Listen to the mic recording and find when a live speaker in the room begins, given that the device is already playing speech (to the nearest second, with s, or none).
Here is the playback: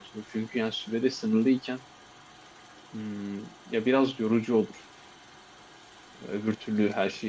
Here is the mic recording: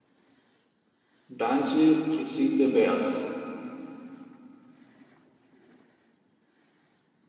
1 s